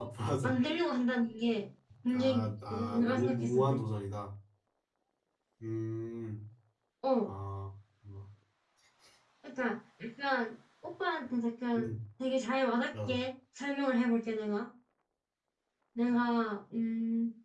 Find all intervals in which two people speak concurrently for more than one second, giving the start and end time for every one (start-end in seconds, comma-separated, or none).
2.1-3.8